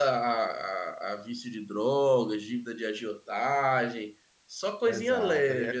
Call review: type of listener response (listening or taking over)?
taking over